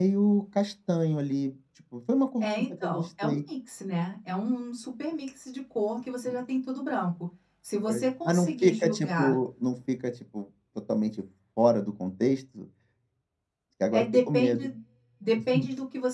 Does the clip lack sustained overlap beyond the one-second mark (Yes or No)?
No